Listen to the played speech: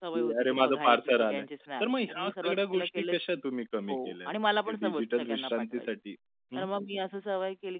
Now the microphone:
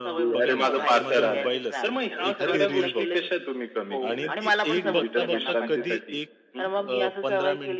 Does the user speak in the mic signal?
Yes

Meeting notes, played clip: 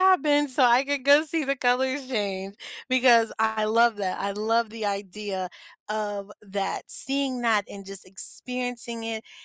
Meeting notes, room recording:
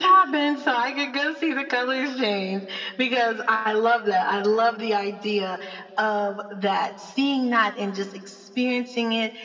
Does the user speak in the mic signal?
No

